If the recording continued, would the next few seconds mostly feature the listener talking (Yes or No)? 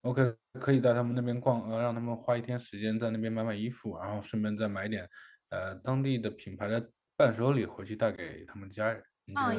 Yes